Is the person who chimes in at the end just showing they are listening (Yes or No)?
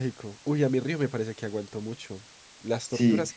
No